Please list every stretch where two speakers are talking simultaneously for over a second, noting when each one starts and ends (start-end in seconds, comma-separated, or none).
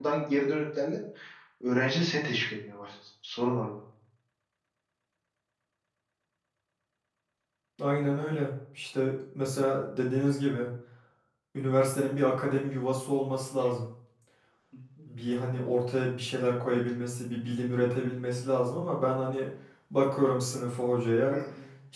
none